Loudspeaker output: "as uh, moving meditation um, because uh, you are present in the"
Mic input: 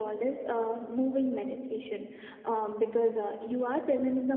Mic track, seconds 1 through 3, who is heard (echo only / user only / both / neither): echo only